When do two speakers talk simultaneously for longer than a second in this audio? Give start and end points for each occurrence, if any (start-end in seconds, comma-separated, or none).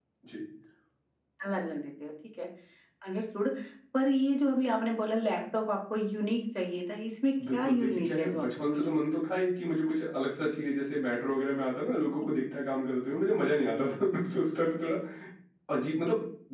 7.5-8.9